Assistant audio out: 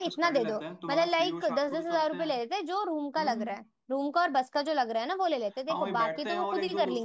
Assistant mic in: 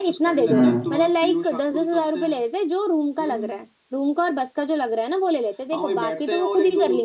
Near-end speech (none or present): present